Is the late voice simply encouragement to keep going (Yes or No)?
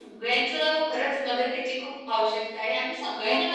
No